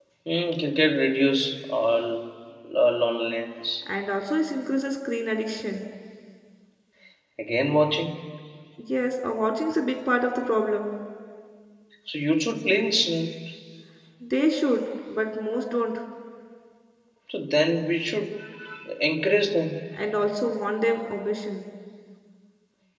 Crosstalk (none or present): none